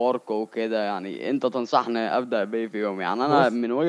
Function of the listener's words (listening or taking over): listening